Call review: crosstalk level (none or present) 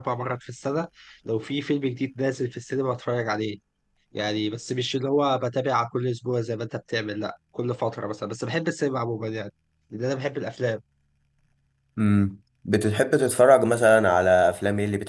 none